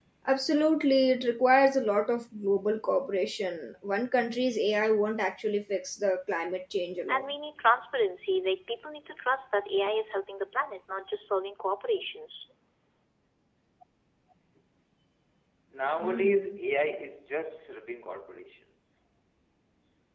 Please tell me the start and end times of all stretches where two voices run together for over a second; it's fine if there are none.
none

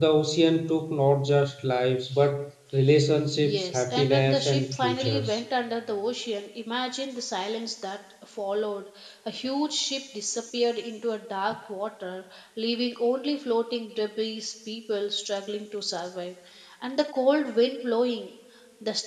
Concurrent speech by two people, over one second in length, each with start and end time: 3.4-5.4

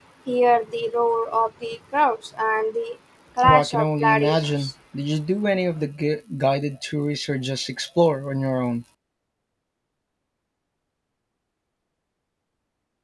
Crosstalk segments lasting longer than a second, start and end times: 3.4-4.7

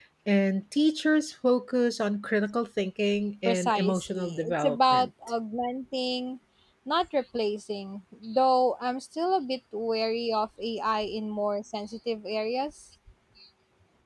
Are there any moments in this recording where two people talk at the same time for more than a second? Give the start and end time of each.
3.5-5.1

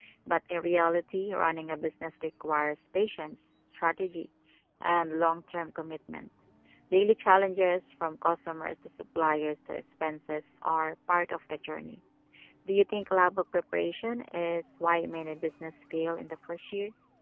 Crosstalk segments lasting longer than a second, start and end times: none

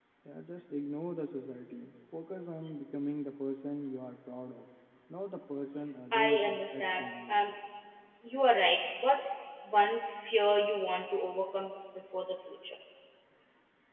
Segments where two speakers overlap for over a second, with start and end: 6.1-7.4

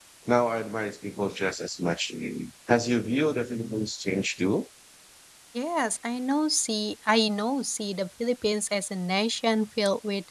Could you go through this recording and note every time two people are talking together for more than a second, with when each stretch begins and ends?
none

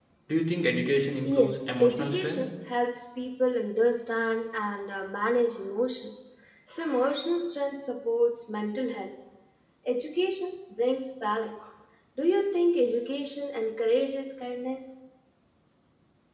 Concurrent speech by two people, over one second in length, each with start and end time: 1.2-2.4

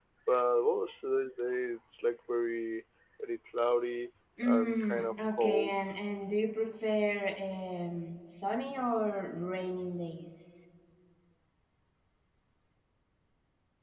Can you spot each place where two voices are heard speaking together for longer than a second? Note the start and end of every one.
4.4-5.7

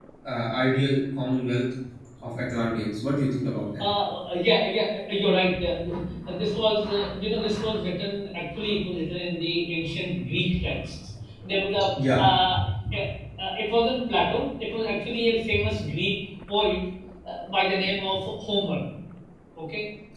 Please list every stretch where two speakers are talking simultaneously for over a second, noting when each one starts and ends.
none

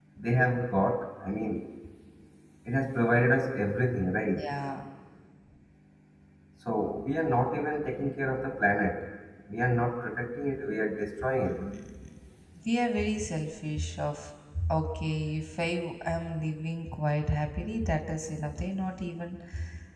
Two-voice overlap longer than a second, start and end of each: none

